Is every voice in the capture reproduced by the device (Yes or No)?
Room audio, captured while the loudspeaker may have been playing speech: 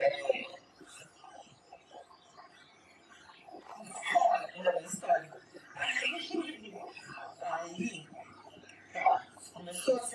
Yes